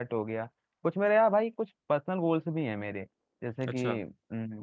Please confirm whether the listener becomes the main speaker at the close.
No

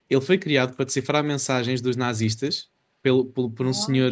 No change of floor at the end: Yes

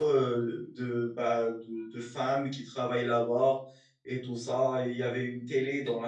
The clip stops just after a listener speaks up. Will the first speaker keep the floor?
Yes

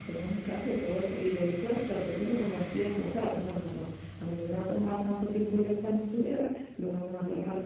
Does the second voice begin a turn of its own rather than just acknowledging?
Yes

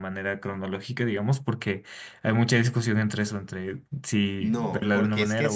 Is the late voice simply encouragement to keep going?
No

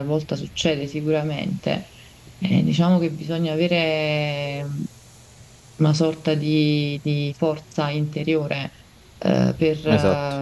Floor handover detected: No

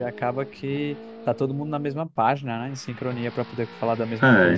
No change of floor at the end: No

